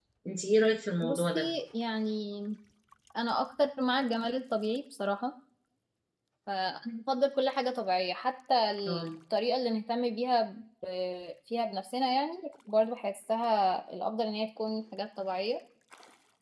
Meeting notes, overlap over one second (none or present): none